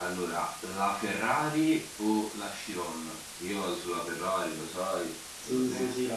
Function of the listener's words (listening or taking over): taking over